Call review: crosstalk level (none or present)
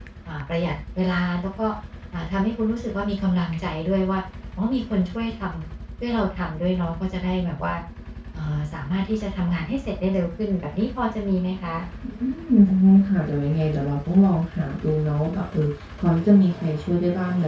none